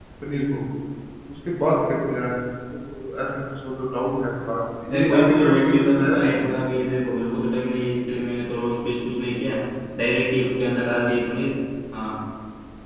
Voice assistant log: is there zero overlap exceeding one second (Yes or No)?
No